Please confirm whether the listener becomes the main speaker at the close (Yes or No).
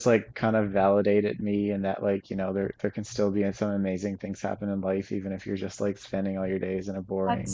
Yes